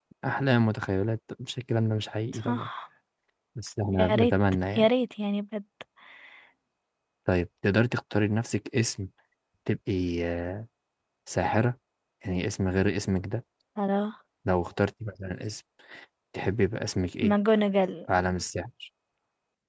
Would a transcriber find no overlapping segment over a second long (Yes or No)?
Yes